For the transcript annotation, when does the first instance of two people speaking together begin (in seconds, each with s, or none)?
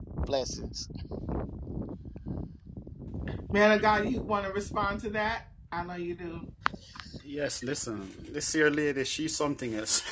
none